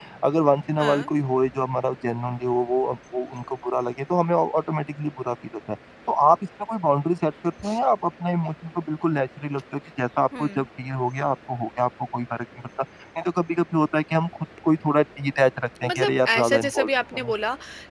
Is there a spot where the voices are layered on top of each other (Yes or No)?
Yes